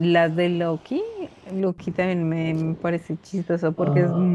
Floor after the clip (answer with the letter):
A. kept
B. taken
A